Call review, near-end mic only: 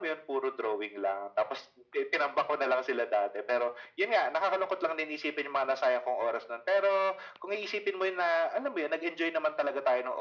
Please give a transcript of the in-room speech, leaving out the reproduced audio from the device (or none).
none